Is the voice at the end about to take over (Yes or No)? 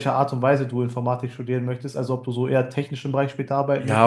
Yes